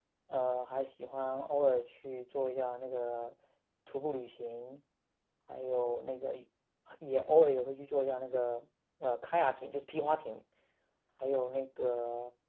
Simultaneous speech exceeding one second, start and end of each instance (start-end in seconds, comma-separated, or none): none